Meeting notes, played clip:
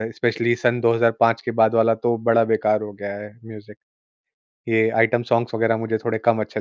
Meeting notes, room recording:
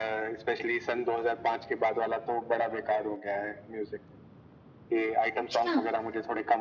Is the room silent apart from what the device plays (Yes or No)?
No